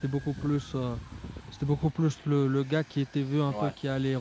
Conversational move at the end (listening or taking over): listening